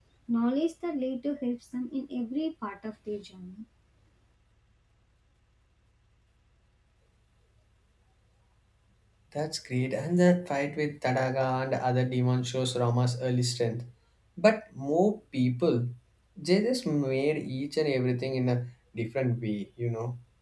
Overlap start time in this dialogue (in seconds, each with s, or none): none